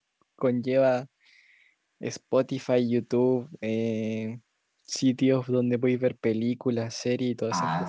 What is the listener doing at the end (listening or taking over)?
taking over